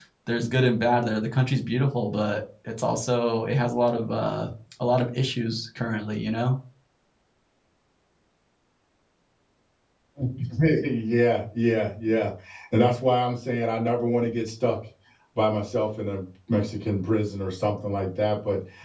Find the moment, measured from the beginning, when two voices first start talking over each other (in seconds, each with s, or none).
none